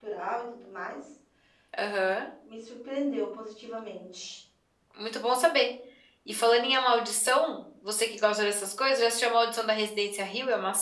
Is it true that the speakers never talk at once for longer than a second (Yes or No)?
Yes